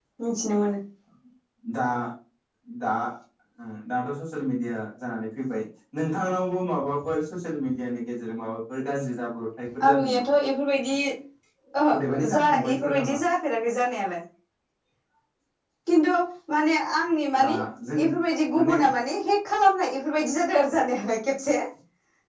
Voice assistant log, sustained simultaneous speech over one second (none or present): present